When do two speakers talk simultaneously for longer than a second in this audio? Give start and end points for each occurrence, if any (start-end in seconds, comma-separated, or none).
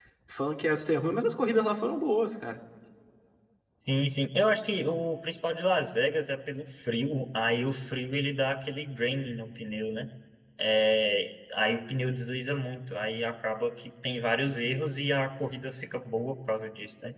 none